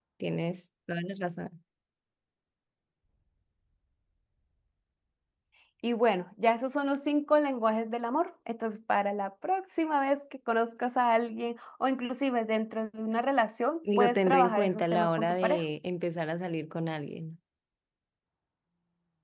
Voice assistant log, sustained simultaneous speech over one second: present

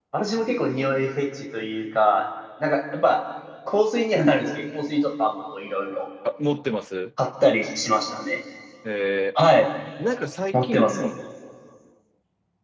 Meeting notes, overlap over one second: none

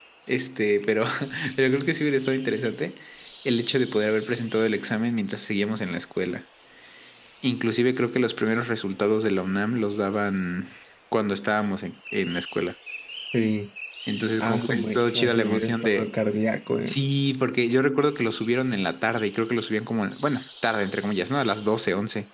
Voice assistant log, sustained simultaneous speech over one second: present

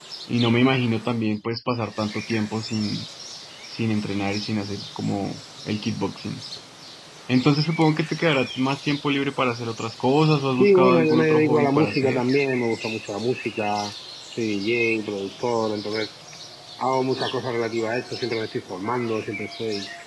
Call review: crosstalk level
present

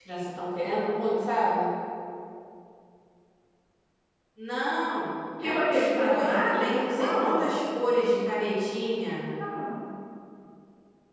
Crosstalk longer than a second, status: present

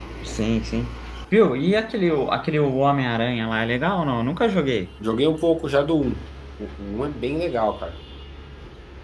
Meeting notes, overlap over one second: none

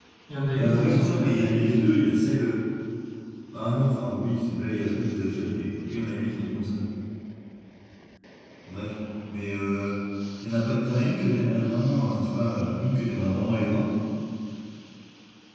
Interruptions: present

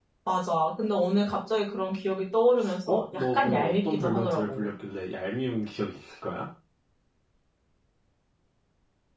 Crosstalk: present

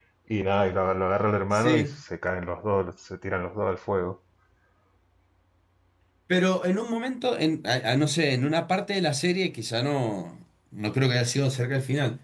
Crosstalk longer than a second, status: none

